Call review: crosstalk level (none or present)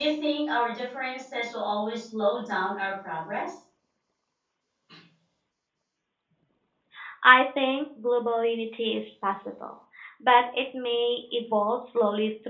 none